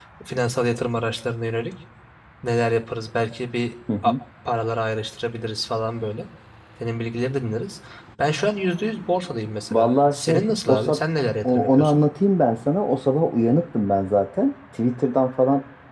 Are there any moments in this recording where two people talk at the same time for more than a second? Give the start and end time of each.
9.7-11.0

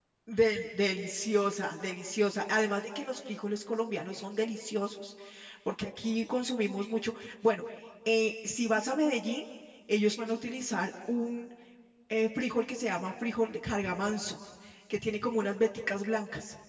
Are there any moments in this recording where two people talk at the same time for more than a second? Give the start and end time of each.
none

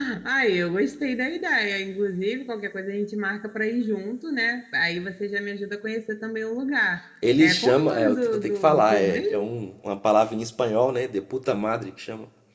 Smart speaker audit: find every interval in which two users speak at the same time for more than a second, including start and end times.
7.4-9.5

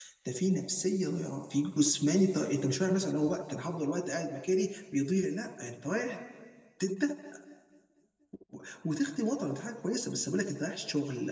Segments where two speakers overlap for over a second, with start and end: none

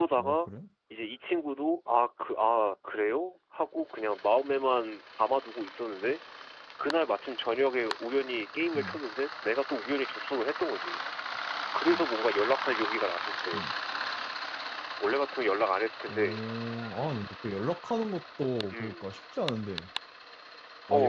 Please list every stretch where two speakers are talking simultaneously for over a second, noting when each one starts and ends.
none

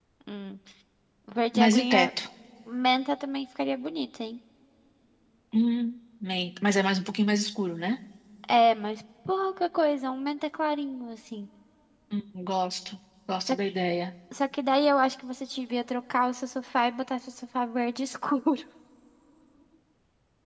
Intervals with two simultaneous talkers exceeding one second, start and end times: none

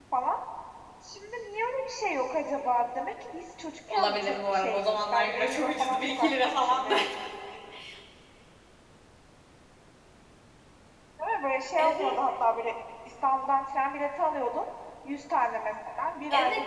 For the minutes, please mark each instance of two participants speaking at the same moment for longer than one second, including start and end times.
3.9-6.9

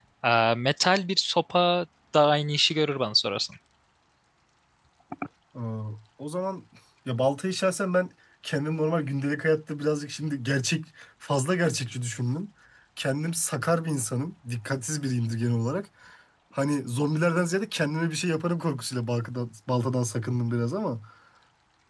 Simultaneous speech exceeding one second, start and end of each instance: none

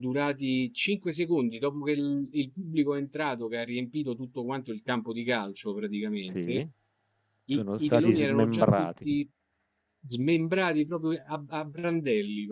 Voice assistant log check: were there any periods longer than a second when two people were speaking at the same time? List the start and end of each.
7.5-9.1

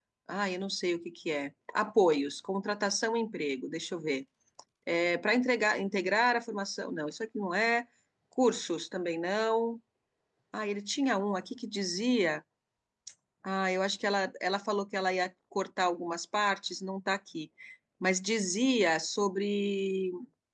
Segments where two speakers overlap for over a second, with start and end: none

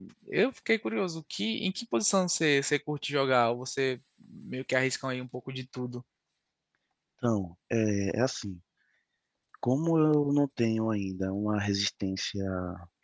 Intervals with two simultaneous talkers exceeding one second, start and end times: none

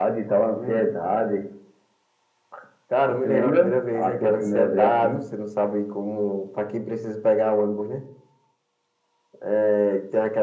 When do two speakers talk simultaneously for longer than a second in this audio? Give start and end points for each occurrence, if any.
3.1-5.2

